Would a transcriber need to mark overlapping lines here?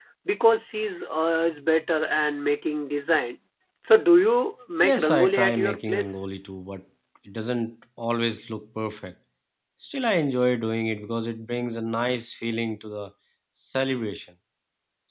Yes, from 4.8 s

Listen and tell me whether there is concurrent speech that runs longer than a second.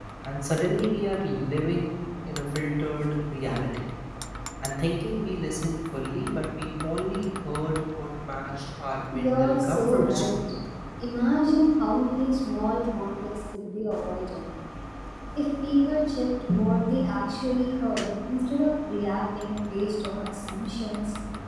Yes, from 9.1 s

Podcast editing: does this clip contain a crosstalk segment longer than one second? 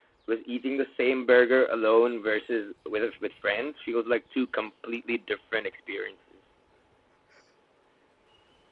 No

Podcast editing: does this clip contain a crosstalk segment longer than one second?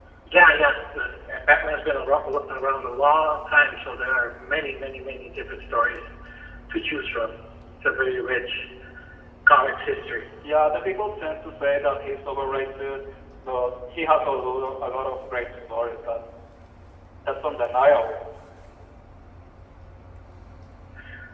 No

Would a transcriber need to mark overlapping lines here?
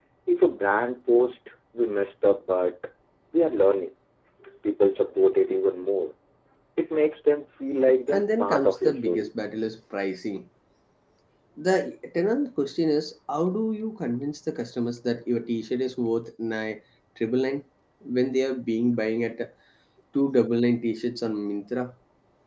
Yes, from 8.1 s

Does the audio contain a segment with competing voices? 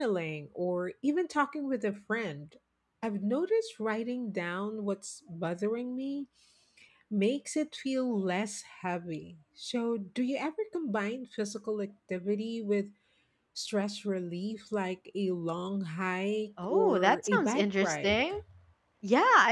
Yes, from 16.6 s

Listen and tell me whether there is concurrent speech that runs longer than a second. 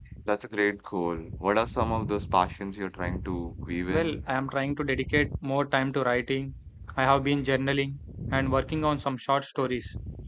No

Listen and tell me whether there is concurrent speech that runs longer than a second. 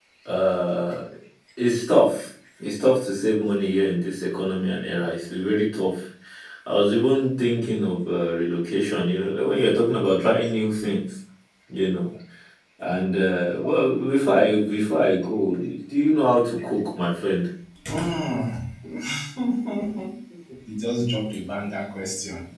No

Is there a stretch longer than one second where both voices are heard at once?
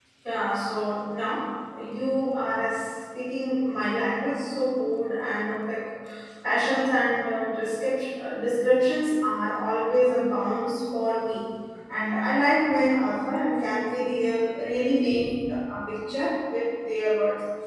No

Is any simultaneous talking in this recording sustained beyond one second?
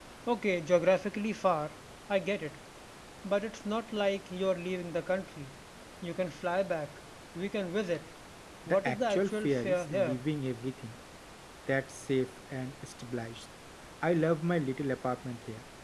Yes, from 8.7 s

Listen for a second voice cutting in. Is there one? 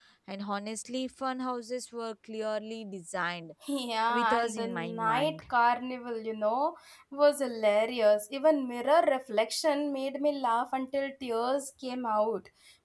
Yes, from 4.1 s

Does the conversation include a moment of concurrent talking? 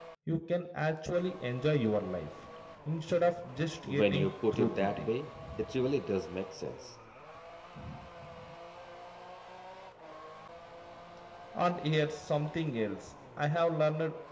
Yes, from 3.9 s

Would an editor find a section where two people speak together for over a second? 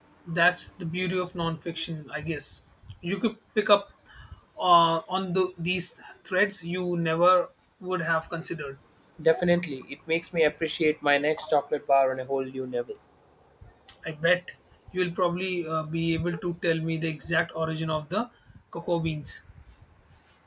No

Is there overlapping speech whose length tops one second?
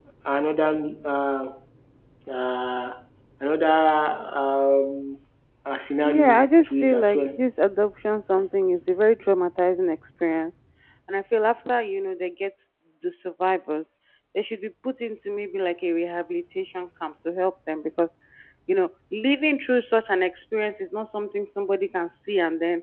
Yes, from 6.0 s

